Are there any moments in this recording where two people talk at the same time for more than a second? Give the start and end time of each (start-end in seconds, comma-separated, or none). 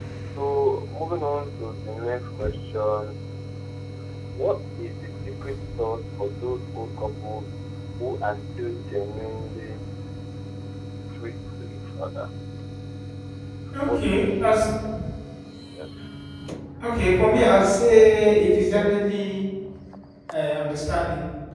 none